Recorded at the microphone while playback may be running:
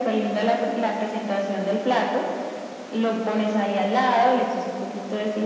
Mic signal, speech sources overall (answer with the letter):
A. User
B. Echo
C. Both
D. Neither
B